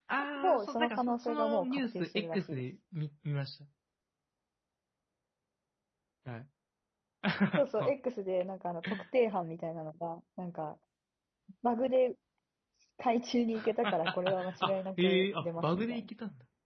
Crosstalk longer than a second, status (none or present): present